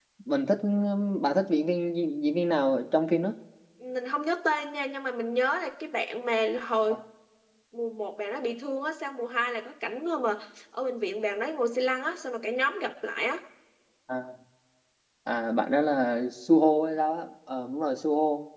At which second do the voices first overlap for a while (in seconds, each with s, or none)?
none